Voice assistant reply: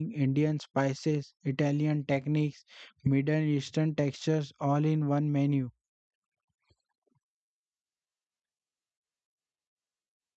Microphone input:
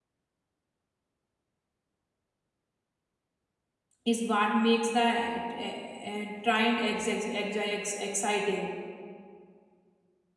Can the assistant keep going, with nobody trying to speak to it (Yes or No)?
No